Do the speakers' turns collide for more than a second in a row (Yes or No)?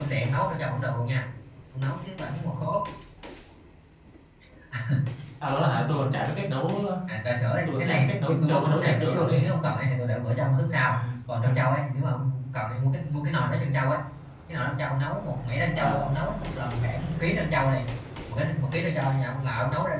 Yes